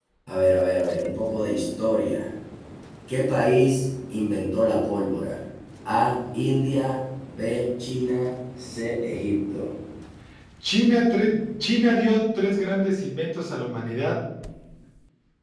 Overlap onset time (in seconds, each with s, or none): none